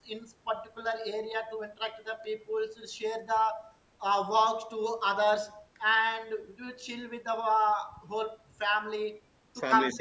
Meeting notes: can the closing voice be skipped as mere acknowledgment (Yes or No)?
Yes